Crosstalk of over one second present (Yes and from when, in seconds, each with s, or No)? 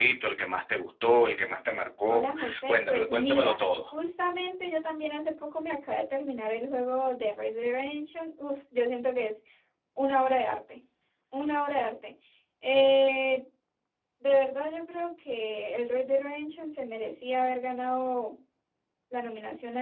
Yes, from 2.1 s